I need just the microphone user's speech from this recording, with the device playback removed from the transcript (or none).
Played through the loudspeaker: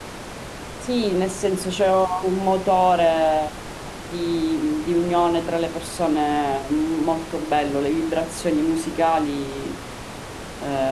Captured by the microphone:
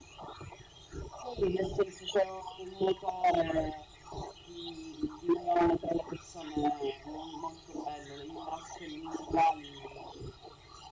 none